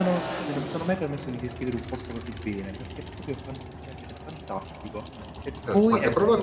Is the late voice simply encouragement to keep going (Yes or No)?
No